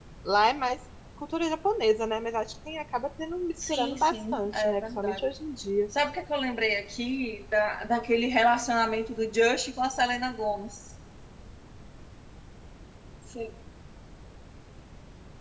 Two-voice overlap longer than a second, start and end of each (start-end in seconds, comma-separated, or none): 3.7-5.2